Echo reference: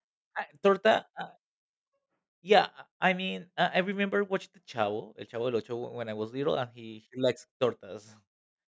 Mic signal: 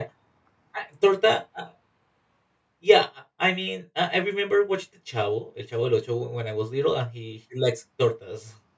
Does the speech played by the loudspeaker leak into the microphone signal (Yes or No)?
Yes